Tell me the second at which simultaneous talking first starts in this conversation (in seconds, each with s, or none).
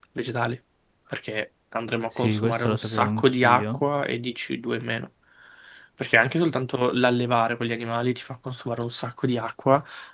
2.1 s